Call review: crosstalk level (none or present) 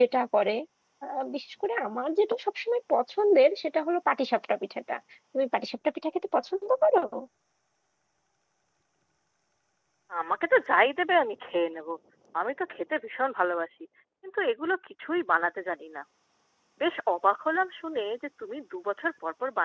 none